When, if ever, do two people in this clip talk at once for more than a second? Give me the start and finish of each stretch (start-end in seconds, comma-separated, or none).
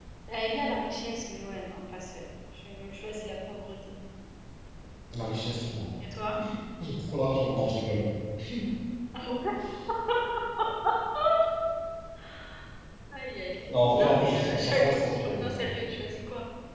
13.7-15.8